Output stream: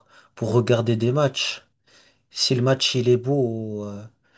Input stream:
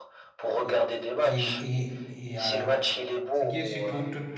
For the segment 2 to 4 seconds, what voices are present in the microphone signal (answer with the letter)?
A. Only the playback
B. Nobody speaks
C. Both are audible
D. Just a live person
C